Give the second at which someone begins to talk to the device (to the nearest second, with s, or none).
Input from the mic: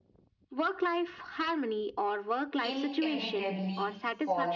3 s